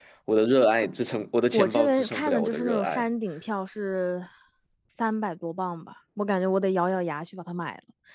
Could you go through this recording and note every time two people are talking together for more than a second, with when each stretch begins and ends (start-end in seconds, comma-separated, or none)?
1.5-3.1